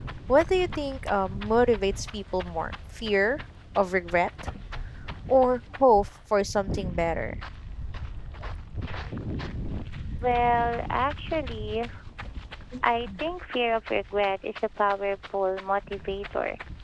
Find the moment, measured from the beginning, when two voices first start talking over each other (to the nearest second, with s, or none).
none